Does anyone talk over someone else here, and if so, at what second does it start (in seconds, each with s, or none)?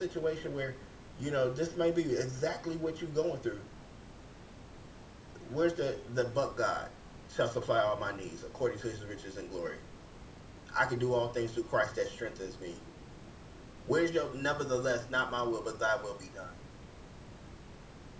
none